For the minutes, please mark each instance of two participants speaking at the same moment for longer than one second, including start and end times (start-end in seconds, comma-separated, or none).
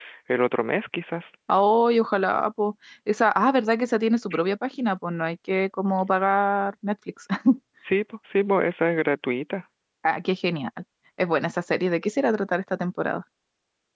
none